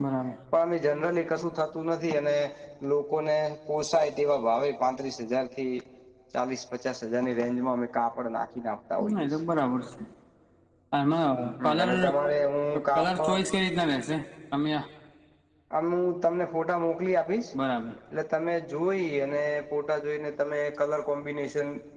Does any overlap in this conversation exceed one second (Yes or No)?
No